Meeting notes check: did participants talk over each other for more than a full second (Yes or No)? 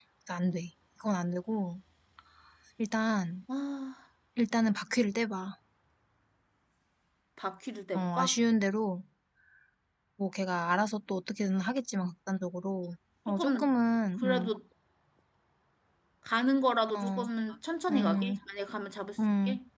No